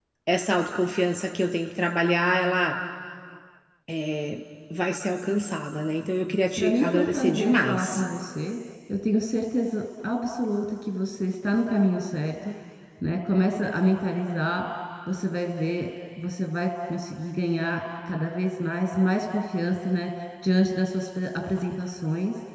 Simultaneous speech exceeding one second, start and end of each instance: 6.6-8.0

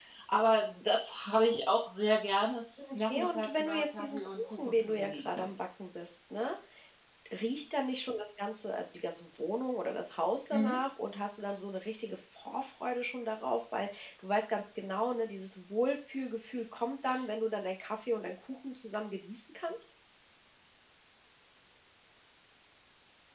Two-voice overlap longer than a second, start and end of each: 2.9-5.5

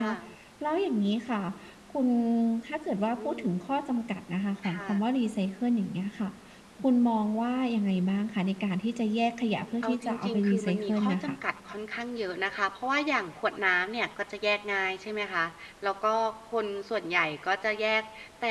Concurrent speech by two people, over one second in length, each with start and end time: 9.8-11.4

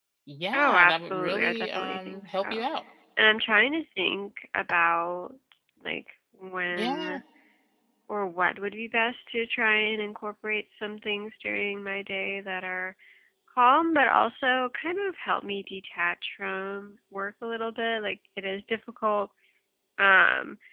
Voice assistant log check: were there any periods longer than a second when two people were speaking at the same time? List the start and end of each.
0.5-2.6

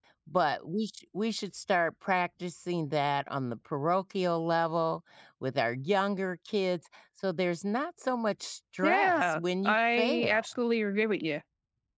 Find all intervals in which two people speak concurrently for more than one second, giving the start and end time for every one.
8.8-10.4

